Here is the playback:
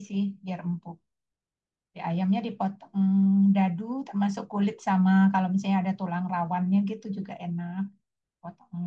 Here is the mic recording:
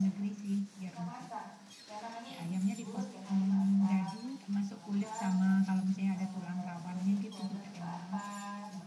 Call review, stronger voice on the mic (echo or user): echo